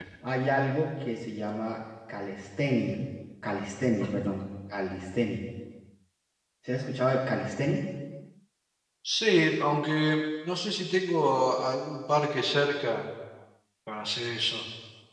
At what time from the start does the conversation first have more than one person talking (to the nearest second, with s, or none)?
none